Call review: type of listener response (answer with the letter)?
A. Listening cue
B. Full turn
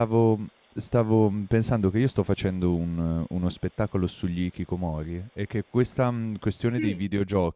A